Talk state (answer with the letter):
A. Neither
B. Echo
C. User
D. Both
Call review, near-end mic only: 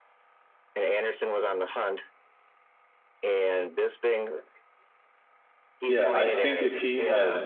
D